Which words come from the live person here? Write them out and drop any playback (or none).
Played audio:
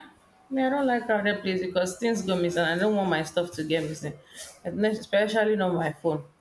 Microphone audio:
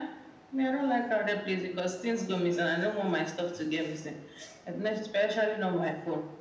none